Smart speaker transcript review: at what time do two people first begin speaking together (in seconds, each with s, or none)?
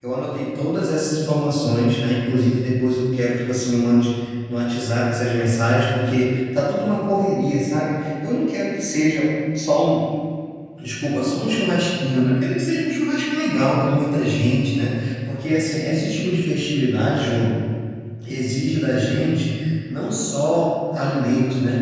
none